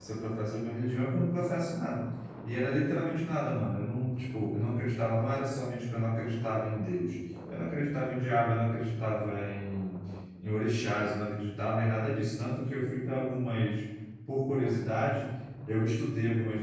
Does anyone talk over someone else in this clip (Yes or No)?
No